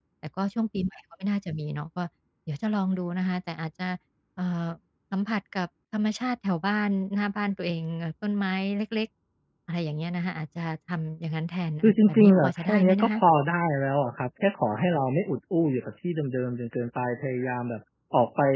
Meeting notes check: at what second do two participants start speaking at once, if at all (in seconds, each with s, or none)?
11.8 s